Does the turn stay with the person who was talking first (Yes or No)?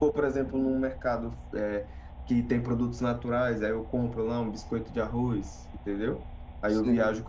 Yes